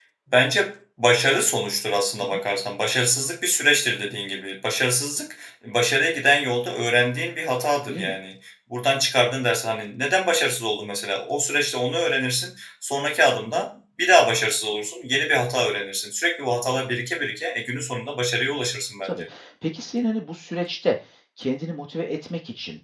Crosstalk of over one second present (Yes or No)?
No